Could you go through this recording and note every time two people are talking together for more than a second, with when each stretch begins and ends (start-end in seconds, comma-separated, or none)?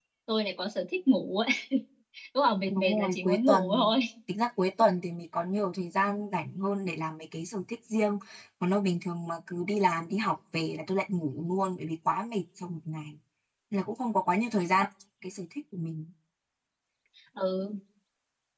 2.7-3.9